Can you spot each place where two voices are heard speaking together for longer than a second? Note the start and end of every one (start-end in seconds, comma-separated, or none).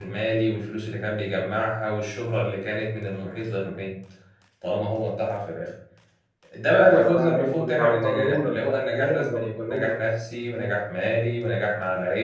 6.8-10.0